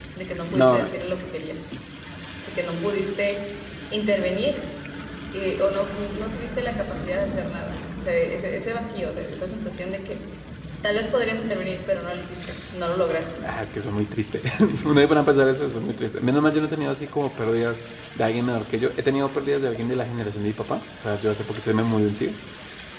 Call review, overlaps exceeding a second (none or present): none